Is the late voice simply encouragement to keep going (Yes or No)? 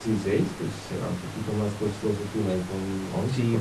No